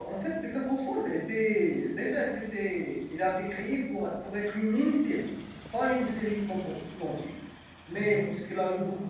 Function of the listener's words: listening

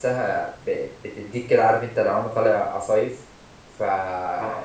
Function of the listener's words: listening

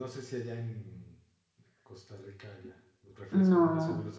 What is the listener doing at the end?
listening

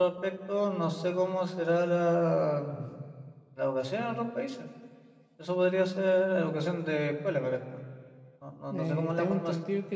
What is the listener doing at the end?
taking over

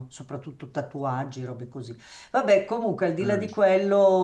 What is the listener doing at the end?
listening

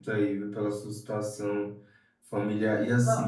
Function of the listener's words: listening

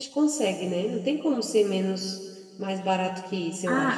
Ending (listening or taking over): taking over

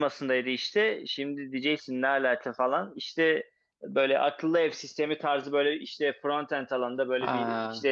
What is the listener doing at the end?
listening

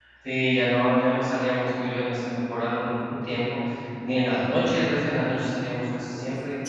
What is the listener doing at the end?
taking over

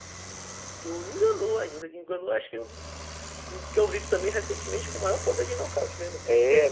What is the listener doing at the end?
taking over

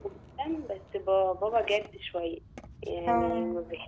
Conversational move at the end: listening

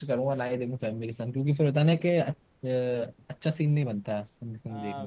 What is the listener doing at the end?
taking over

